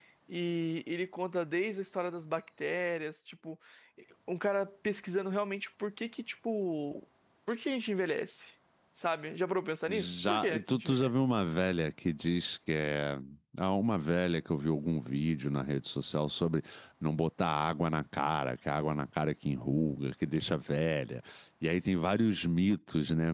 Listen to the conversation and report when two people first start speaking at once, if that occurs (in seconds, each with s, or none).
9.9 s